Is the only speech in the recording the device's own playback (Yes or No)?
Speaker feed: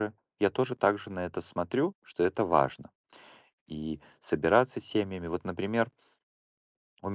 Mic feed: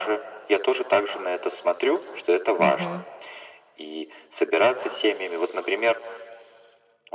No